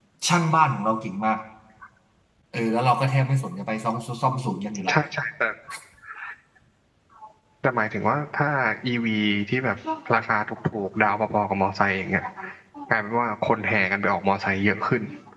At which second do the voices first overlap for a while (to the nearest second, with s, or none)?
none